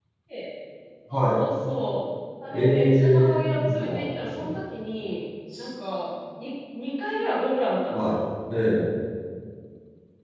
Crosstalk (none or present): present